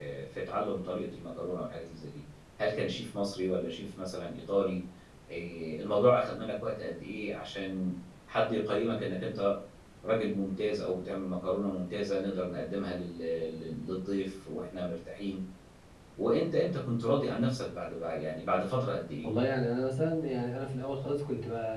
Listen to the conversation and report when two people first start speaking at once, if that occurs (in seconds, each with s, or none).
none